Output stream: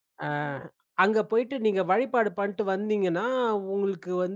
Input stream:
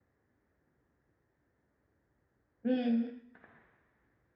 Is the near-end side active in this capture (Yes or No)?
Yes